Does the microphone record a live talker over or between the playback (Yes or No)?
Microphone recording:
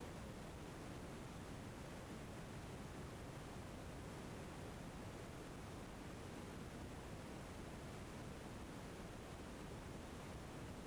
No